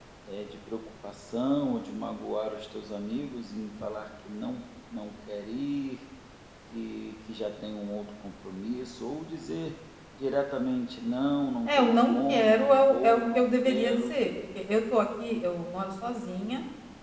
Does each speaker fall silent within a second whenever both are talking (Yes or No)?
No